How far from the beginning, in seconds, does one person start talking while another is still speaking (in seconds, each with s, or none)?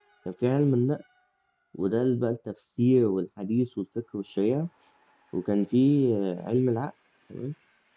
none